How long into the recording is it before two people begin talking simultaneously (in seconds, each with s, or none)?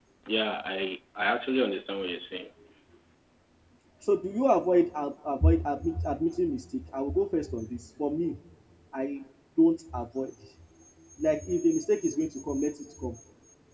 none